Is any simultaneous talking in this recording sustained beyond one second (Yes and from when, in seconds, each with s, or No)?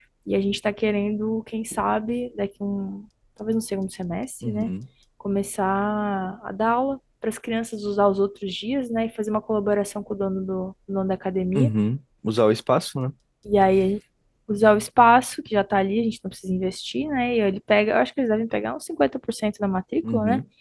No